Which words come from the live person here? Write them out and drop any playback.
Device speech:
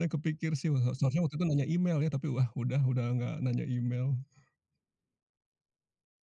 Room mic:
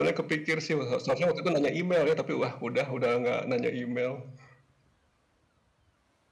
none

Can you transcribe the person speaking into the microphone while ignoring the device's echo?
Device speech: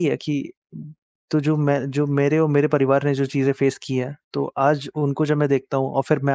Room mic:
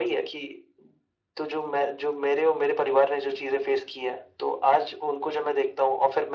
none

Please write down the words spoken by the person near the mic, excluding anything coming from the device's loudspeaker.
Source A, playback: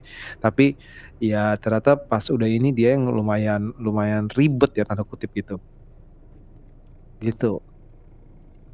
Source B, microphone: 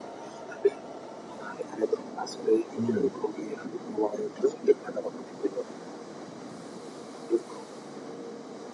Mmm.

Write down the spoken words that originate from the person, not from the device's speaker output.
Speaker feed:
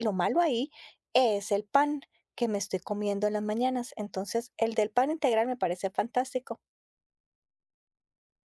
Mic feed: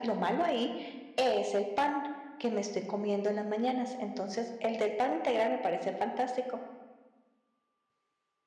none

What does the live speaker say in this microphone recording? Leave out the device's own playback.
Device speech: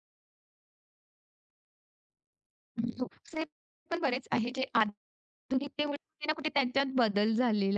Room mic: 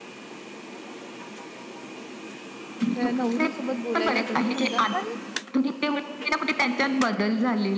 त्या नवरीसोबत बोलायला जातो समजा, पण

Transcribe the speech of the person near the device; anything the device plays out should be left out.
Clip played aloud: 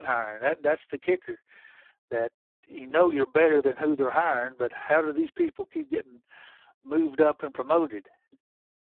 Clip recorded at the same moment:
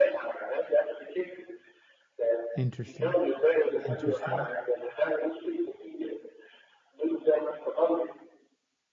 Interesting, interesting.

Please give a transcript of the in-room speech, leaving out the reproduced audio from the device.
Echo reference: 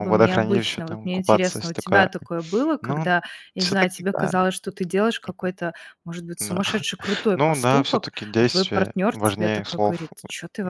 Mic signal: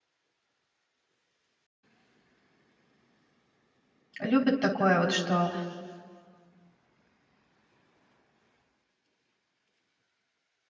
Любят такое вот, что:

